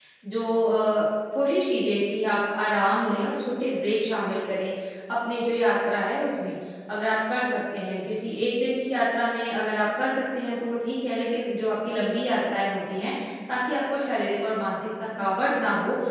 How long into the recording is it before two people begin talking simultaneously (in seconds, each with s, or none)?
none